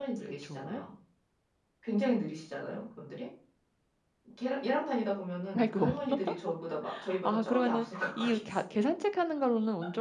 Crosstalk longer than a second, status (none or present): present